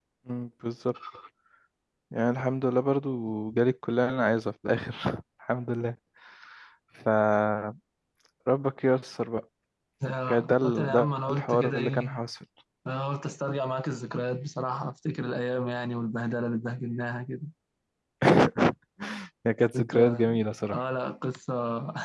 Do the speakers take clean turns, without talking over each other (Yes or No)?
No